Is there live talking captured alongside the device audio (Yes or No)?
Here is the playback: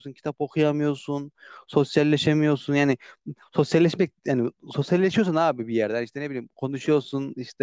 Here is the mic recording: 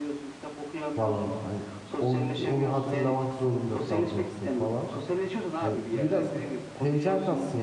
Yes